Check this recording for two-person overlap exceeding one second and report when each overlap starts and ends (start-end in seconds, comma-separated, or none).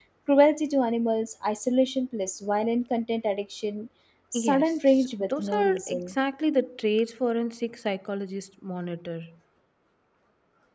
4.3-6.1